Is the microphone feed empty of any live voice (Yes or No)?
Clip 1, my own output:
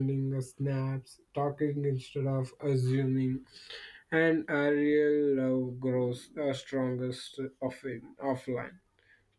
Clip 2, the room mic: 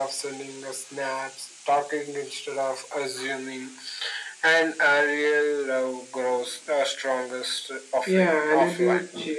No